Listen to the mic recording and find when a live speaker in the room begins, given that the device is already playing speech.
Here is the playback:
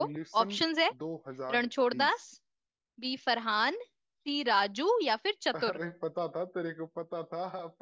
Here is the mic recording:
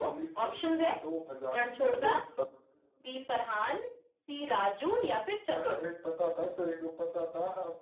1.8 s

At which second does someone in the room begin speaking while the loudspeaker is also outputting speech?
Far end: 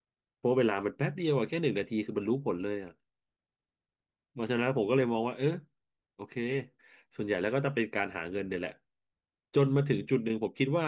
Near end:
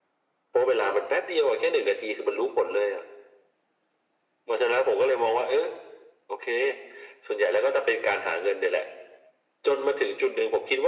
none

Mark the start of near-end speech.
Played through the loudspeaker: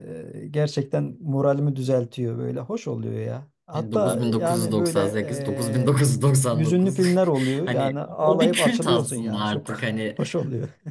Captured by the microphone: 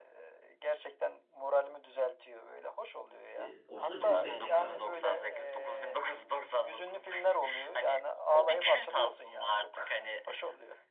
3.3 s

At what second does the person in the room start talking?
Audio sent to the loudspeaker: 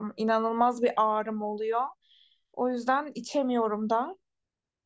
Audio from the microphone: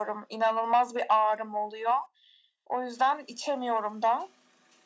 none

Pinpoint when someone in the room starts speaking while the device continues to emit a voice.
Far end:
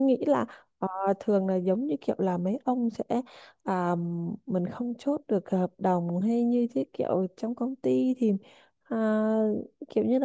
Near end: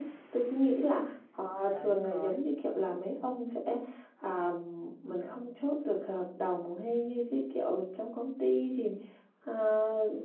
1.7 s

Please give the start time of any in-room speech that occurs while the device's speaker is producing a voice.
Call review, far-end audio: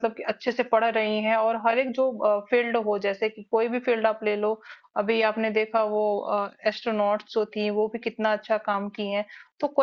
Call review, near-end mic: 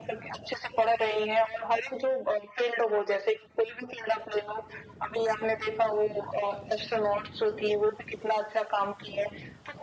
none

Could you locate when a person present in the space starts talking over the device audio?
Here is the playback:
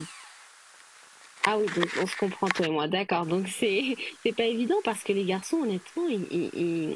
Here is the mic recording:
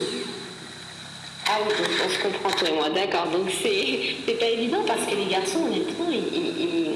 none

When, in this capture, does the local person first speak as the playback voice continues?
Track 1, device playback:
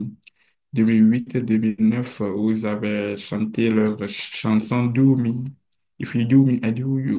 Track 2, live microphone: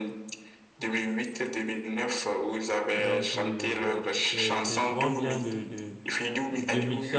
2.9 s

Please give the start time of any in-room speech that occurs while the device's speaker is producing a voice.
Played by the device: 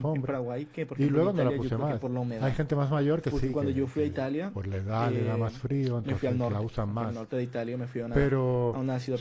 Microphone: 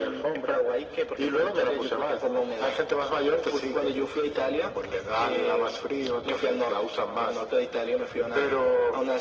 none

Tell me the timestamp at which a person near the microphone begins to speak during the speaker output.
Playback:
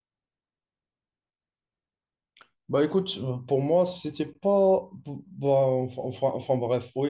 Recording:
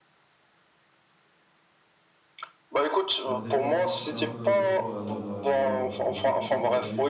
3.2 s

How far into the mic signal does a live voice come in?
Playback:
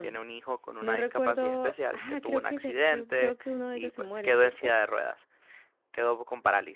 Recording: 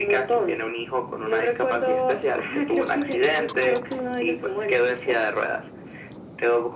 none

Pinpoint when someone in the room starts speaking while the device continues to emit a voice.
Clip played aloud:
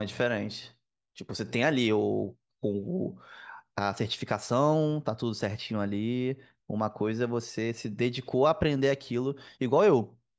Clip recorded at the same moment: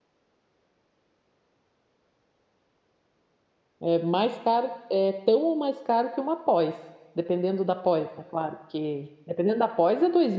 3.8 s

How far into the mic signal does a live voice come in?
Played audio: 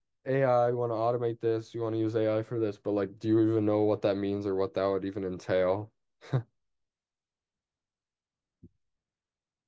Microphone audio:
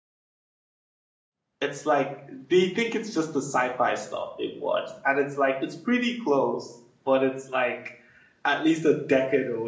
1.6 s

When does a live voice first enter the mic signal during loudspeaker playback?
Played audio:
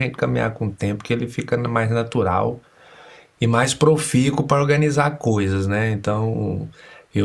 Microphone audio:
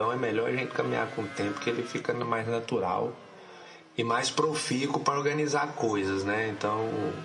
none

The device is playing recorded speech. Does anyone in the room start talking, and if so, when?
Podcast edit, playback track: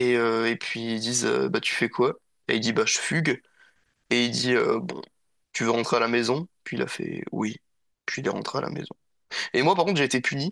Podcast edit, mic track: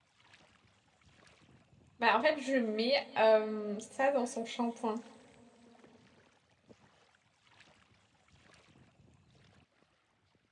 2.0 s

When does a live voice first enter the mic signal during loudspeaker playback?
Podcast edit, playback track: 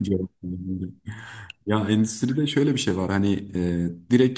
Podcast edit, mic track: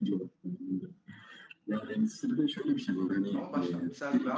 3.3 s

